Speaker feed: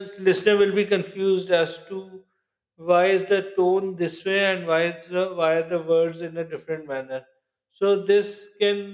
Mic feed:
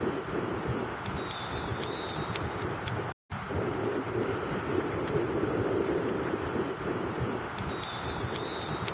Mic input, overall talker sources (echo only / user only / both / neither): neither